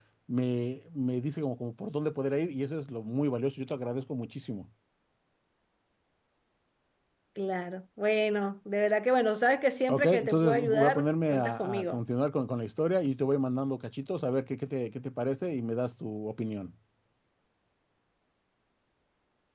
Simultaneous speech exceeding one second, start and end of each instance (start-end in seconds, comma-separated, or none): 9.9-12.0